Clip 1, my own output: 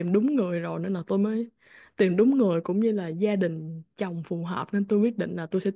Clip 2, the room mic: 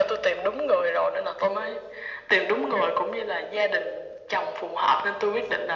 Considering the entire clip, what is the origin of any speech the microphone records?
echo only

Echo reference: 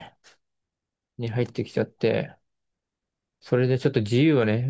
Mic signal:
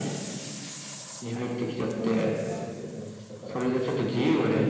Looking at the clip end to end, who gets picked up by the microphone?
both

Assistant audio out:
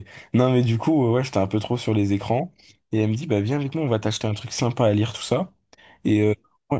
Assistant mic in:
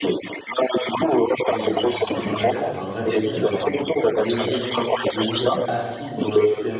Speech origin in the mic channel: both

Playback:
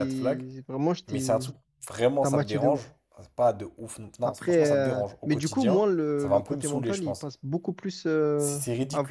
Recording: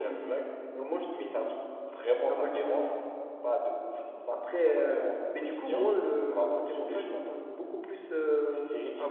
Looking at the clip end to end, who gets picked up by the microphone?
echo only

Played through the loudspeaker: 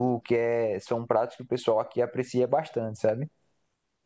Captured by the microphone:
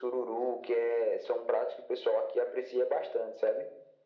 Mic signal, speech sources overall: echo only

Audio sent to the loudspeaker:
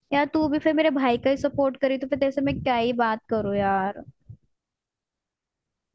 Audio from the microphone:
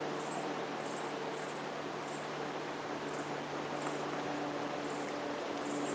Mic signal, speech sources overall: neither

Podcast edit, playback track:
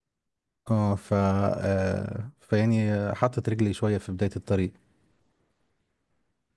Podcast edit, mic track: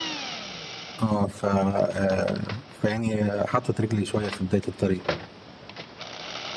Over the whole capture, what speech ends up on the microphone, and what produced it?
echo only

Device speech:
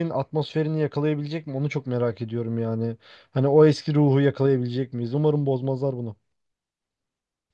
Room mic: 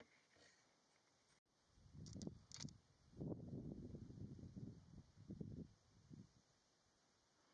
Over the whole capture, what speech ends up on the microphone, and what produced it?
neither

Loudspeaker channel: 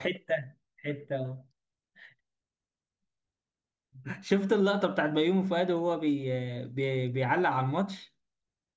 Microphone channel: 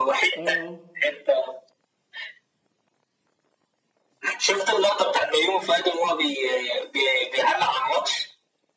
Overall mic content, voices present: both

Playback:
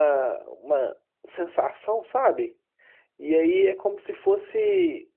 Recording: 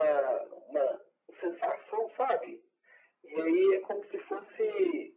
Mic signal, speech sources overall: echo only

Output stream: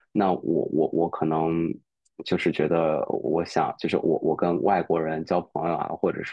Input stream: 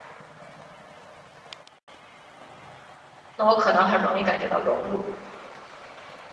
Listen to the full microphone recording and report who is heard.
user only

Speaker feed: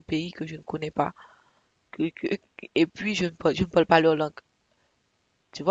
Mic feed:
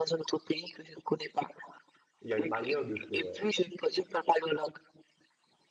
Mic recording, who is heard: both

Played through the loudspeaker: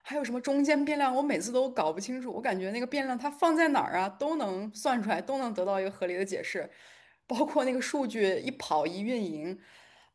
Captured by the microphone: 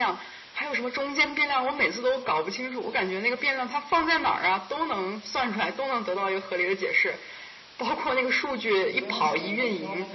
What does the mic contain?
both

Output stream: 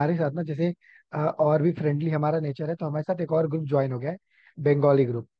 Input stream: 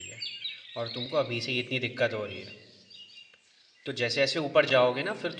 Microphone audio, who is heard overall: user only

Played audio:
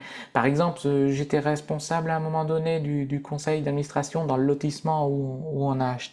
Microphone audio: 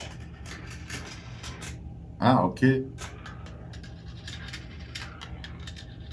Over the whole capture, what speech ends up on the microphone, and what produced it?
user only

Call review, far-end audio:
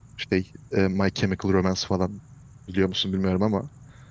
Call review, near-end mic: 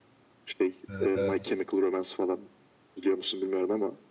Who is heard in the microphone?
both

